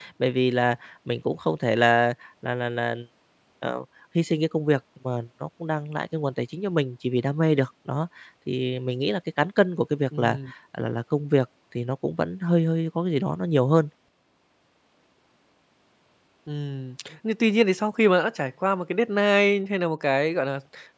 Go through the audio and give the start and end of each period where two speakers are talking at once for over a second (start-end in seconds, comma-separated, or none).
none